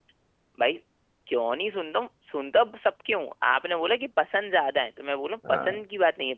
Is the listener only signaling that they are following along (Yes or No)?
Yes